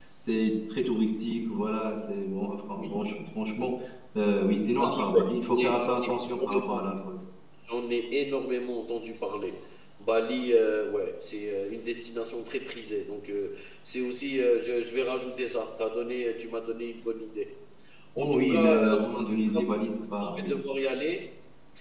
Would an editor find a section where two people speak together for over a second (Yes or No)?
Yes